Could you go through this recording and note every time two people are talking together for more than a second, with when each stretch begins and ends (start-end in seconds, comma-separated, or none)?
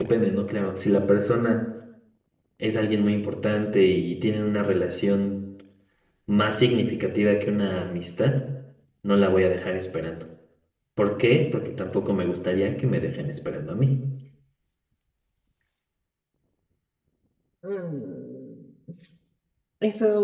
none